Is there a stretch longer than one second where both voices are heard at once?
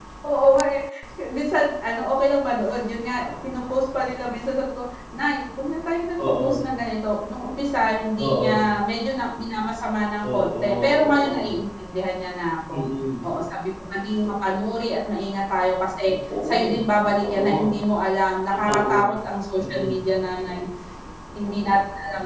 Yes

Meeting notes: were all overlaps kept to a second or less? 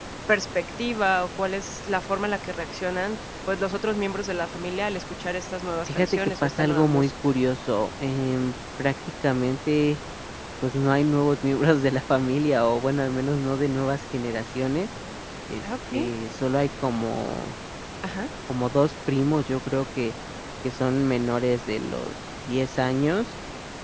No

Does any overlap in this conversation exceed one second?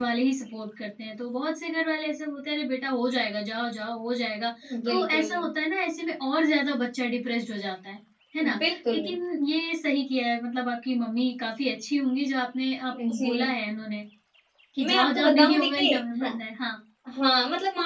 Yes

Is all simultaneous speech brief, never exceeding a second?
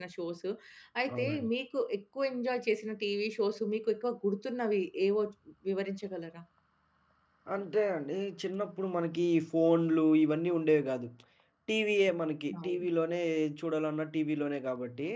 Yes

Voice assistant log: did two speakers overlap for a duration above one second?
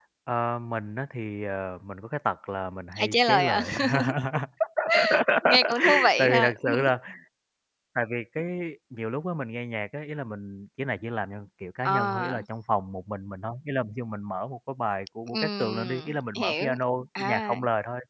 Yes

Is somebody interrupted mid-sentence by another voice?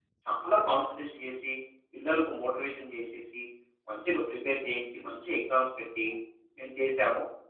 No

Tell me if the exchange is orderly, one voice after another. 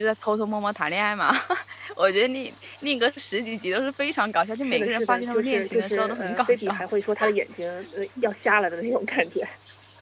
No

